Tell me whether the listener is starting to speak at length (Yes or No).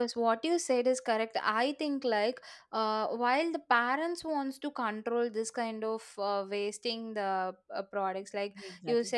No